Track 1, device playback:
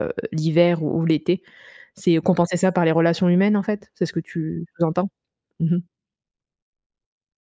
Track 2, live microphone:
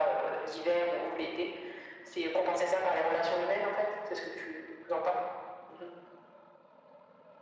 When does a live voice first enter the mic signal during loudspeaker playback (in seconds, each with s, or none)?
none